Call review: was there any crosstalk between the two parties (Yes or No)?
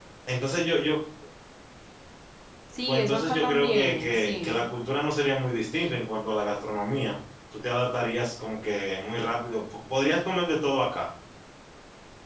Yes